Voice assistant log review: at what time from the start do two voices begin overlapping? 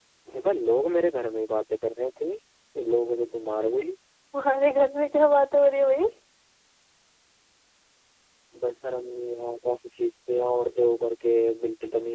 none

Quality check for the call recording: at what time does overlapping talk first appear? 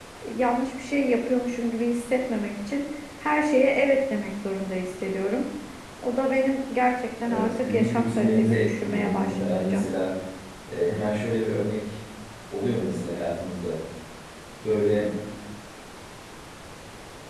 7.2 s

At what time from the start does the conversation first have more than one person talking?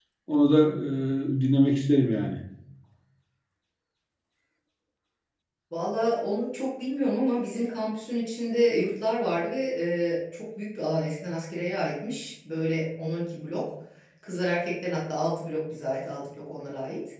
none

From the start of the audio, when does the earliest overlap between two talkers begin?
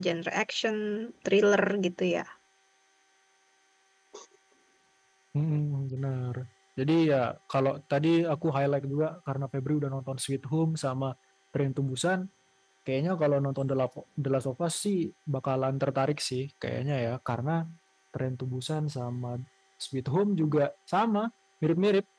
none

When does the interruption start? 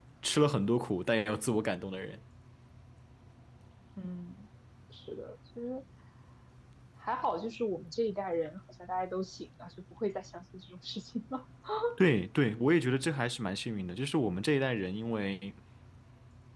none

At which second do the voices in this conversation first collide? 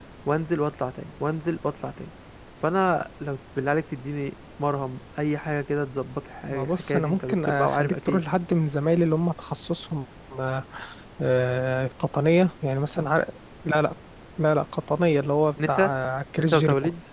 6.5 s

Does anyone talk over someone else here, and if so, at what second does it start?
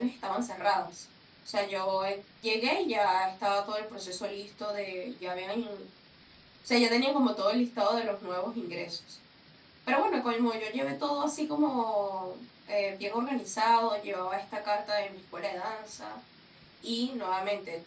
none

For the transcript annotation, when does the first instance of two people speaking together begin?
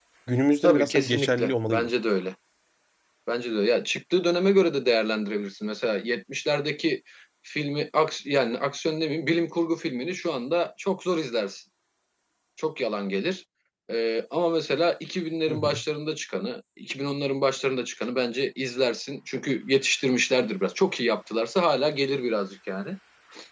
0.6 s

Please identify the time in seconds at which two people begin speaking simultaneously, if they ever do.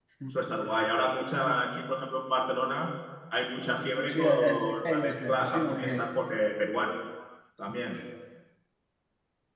4.1 s

